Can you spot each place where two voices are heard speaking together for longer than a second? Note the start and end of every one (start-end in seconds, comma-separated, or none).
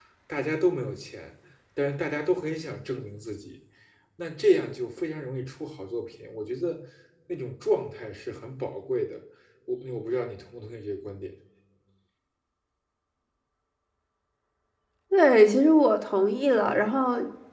none